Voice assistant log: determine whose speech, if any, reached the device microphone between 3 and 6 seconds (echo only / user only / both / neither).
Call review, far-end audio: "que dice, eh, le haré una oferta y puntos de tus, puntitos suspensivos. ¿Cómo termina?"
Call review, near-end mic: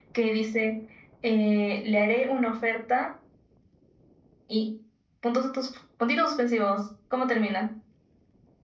echo only